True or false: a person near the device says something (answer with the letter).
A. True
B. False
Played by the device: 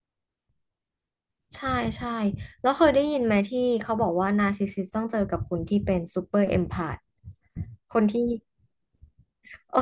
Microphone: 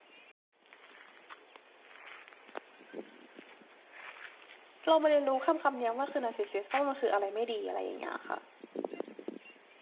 A